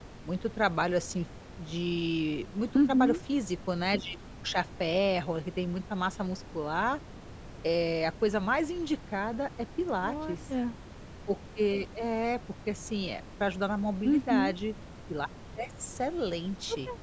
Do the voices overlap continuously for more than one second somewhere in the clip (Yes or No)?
No